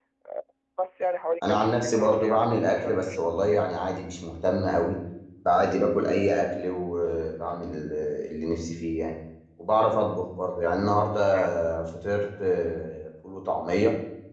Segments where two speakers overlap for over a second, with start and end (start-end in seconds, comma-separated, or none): 1.5-3.6